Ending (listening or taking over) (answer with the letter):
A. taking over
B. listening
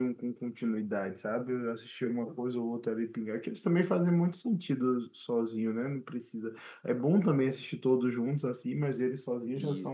B